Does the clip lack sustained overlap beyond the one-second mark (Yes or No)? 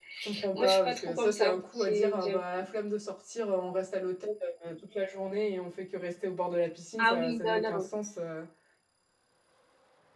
No